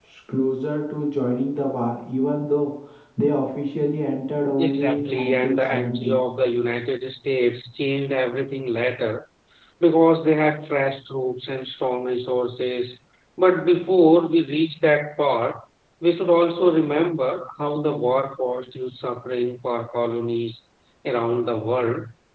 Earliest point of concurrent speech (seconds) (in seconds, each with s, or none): 4.6 s